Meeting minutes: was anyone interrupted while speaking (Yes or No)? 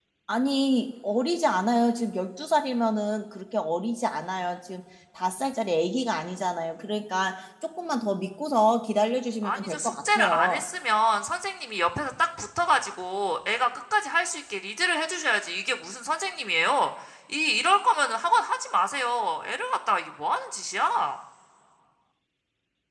Yes